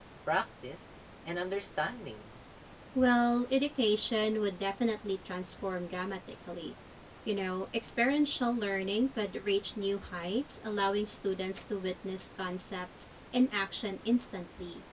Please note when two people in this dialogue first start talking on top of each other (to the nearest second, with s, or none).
none